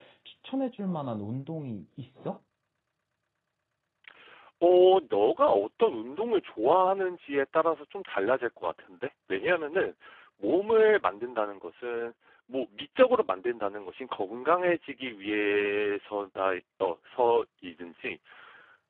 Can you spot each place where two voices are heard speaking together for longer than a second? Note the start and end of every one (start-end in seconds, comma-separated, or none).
none